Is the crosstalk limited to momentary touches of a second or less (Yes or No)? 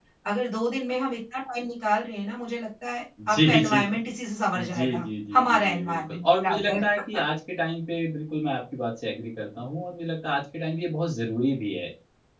No